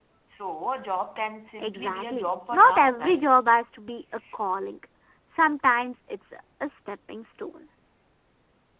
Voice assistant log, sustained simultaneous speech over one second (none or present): present